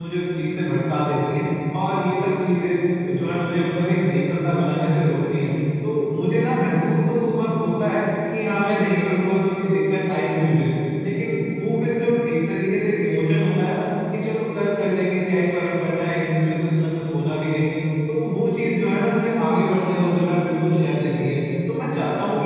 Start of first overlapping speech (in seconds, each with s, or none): none